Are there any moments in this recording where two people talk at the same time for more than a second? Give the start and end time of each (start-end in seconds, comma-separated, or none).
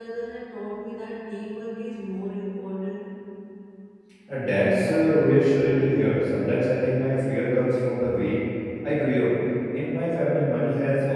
4.5-6.2